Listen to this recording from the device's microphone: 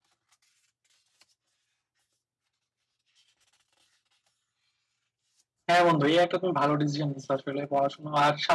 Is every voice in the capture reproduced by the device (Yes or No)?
No